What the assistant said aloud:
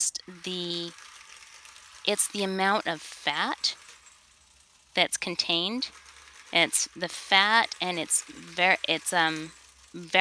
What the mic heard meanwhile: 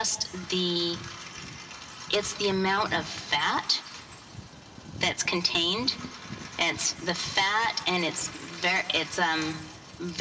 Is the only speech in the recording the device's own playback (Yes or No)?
Yes